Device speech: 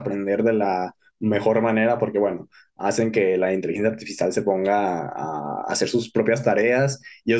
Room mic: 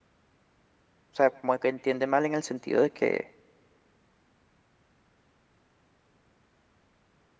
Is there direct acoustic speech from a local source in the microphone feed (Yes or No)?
Yes